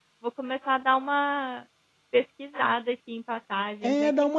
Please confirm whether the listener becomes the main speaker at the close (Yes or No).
Yes